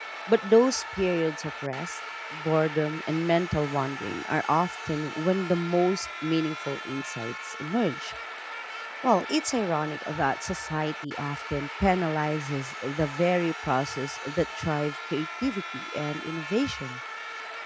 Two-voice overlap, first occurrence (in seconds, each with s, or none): none